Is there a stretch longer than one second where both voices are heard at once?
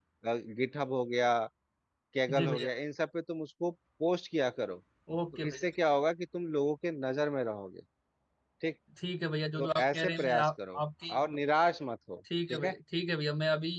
Yes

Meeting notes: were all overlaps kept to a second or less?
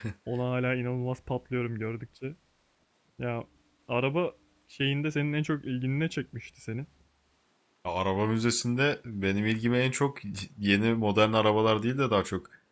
Yes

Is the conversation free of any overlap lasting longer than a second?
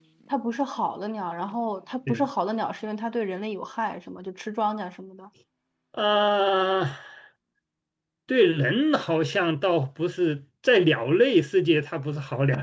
Yes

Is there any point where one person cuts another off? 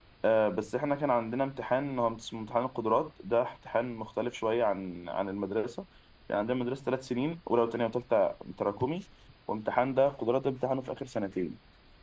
No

